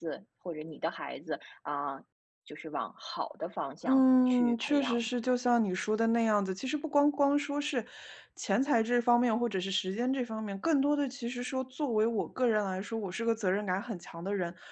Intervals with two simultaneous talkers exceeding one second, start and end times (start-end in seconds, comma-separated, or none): 3.8-5.1